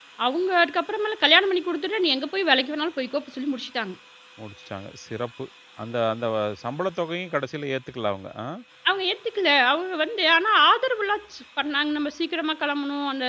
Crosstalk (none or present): none